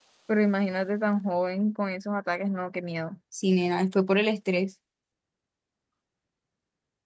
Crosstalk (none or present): none